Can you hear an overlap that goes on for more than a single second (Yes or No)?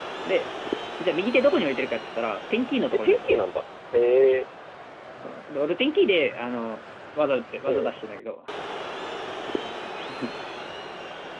No